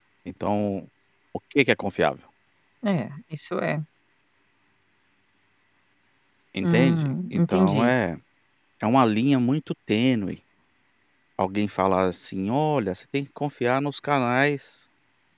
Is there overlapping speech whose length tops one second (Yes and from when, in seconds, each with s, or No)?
Yes, from 6.6 s